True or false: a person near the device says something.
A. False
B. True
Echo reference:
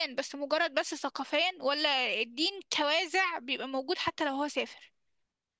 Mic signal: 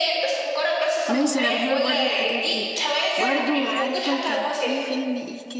B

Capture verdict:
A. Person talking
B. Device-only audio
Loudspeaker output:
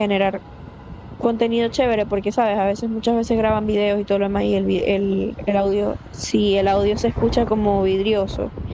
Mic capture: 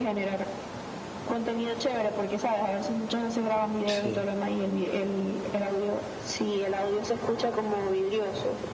A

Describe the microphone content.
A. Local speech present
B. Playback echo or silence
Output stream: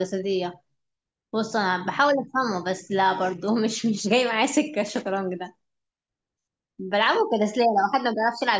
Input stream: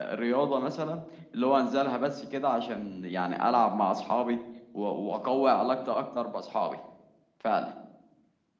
A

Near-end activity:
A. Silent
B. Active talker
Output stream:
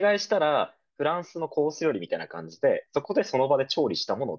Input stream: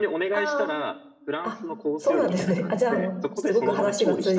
B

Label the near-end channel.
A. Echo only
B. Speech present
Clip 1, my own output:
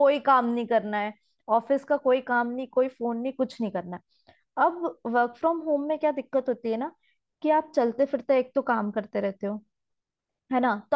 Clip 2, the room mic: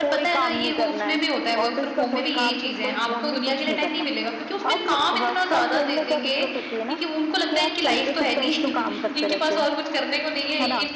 B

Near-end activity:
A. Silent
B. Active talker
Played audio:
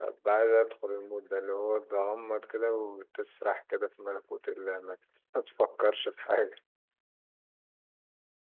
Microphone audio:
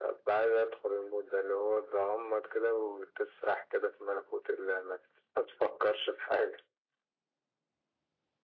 A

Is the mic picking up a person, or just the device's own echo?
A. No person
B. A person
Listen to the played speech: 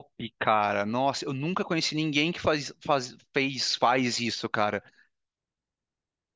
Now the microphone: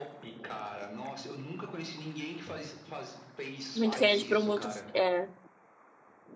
B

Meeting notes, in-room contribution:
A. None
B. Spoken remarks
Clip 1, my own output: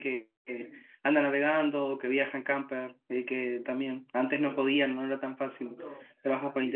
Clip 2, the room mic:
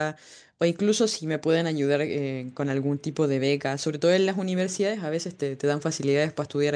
B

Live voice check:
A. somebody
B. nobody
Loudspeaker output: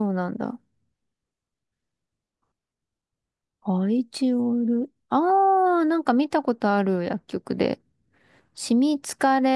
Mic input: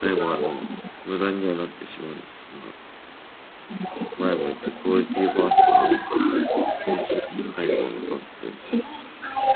A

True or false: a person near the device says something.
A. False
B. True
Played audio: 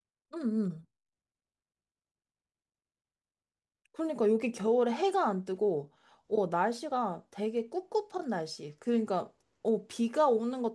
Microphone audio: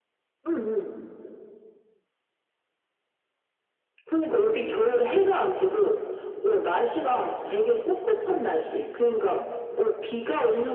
A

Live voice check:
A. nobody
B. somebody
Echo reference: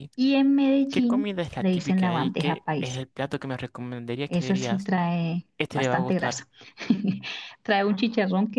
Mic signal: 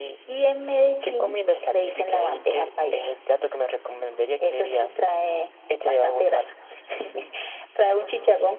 A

